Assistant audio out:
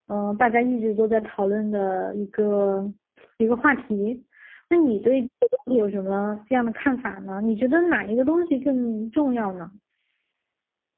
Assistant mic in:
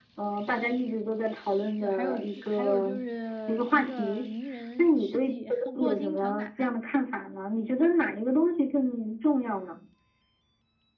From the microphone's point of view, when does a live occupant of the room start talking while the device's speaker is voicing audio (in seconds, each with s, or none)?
1.8 s